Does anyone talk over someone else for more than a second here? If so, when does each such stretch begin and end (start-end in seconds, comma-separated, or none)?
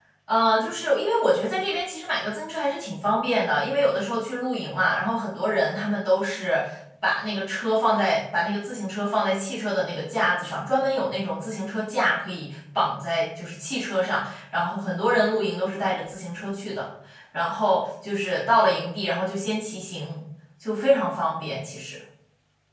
none